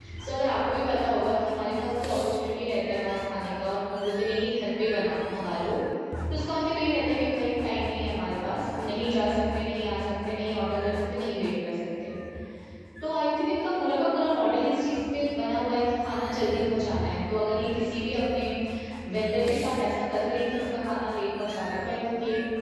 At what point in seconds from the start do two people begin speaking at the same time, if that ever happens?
none

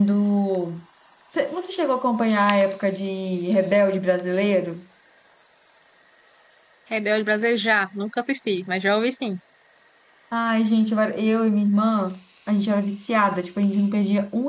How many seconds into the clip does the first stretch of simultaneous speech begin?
none

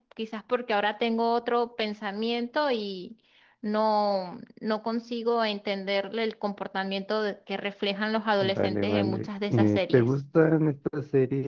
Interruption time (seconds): 8.4 s

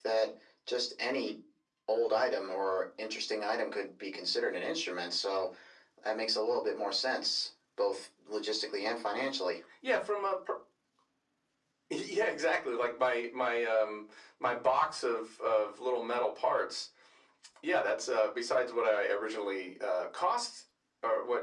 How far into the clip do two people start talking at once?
none

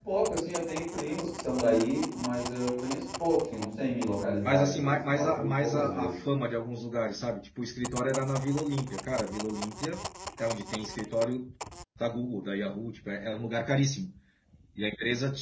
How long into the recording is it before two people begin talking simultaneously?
4.4 s

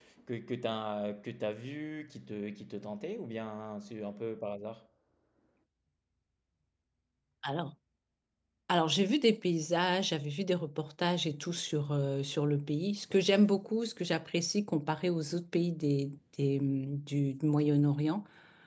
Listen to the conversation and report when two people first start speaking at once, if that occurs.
none

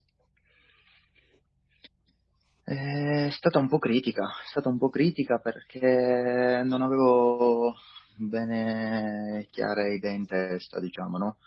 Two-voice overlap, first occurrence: none

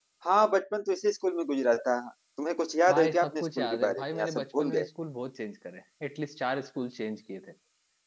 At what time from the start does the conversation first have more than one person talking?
2.9 s

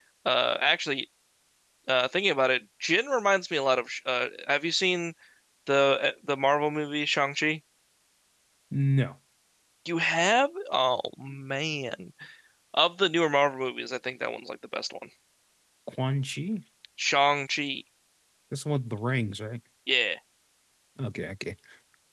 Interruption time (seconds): none

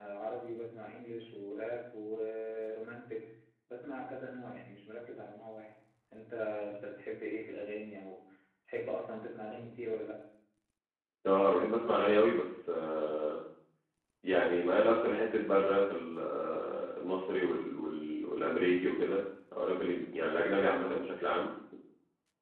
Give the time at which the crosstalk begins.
none

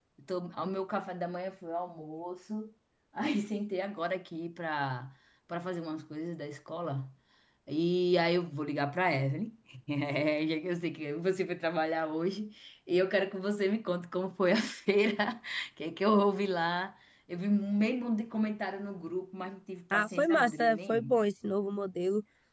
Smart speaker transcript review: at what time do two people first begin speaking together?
19.9 s

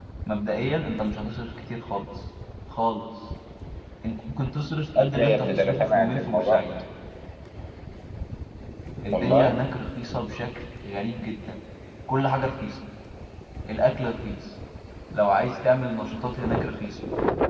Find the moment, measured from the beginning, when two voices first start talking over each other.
5.0 s

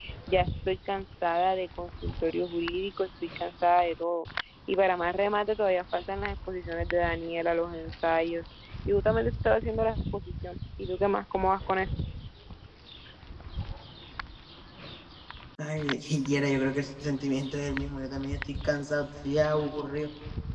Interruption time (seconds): none

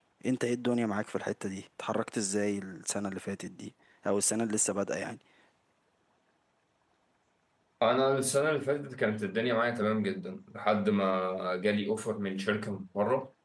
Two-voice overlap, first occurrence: none

